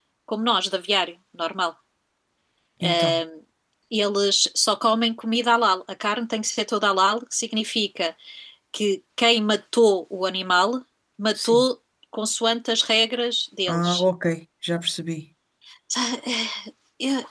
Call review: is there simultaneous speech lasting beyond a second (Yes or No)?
No